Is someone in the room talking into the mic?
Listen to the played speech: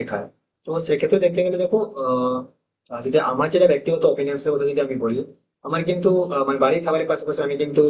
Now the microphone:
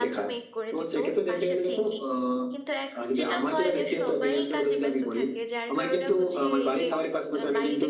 Yes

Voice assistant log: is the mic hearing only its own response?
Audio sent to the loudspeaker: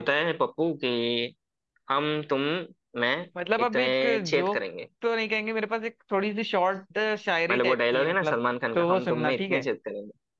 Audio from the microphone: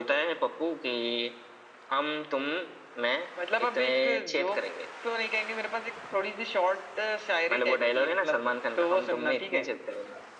Yes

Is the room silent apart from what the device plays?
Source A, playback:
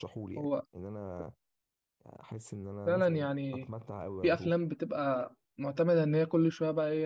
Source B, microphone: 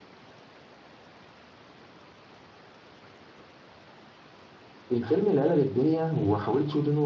No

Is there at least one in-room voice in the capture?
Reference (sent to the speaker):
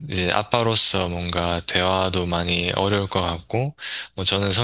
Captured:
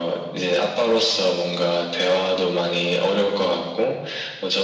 No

